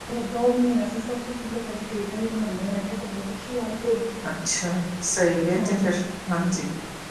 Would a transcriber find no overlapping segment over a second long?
Yes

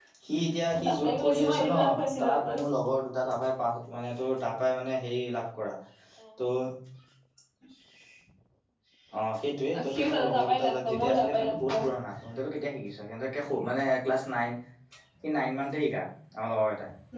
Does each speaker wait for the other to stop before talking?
No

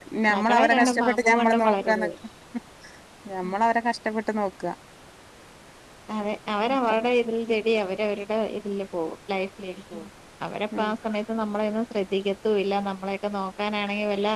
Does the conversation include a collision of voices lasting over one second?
Yes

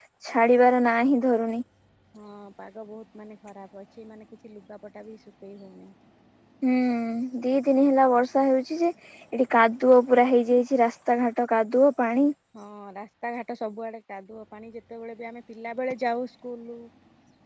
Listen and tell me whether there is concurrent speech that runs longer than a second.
No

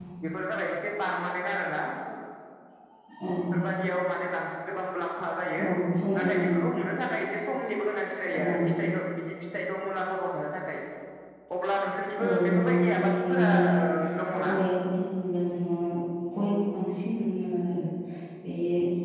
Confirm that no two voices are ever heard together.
No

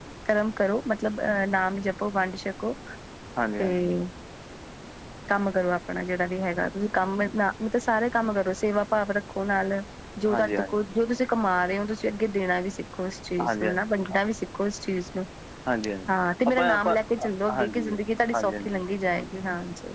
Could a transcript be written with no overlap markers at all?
No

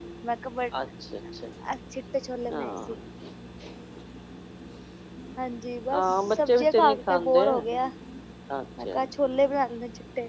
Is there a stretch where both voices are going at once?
Yes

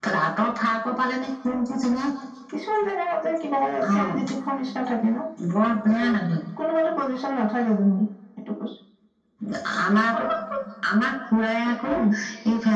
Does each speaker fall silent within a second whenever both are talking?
Yes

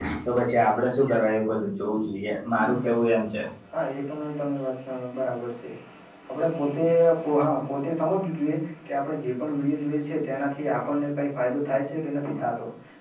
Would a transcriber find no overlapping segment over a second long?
Yes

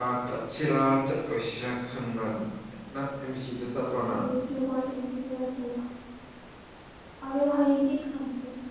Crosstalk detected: No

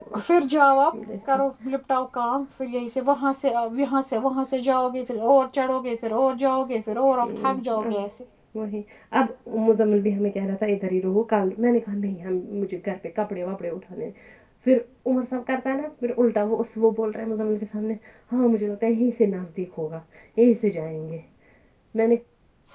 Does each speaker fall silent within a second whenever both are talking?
Yes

